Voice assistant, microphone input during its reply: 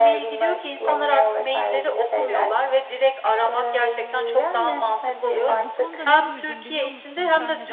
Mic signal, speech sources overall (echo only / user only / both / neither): both